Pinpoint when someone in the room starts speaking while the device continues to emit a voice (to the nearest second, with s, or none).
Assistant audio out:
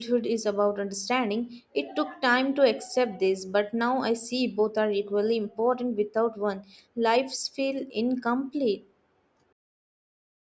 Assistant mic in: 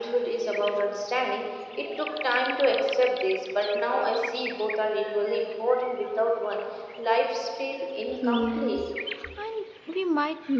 8 s